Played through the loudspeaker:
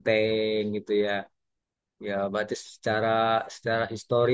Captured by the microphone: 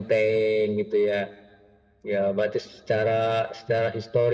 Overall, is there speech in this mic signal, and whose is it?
echo only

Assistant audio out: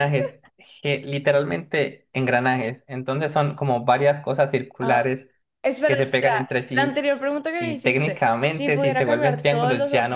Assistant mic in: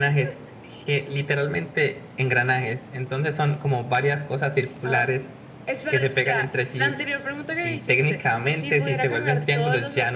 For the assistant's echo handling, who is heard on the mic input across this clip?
echo only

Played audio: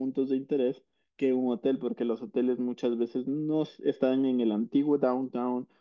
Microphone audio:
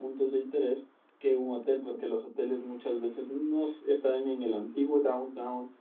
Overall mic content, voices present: echo only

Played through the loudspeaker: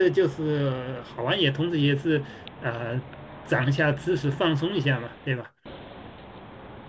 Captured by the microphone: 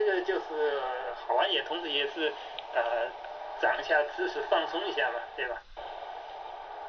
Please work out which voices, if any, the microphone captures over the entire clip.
echo only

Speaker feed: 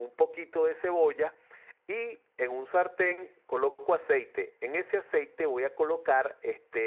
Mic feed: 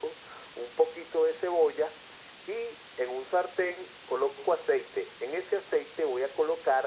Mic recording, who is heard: echo only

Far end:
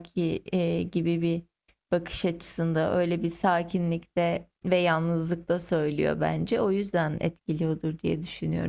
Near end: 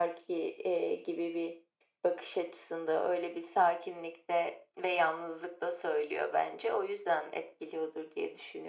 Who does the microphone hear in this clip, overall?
echo only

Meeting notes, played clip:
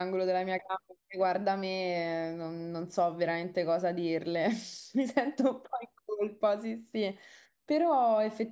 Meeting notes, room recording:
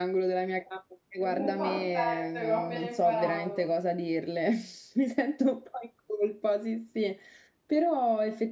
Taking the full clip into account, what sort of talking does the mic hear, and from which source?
both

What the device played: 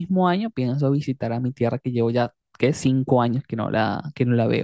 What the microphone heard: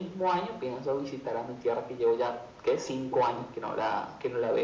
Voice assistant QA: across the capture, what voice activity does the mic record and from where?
echo only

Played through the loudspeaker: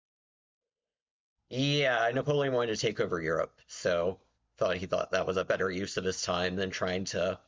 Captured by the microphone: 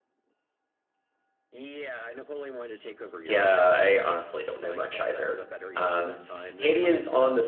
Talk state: both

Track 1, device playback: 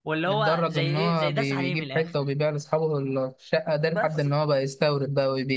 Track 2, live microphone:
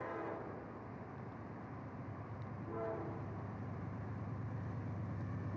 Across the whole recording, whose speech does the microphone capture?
neither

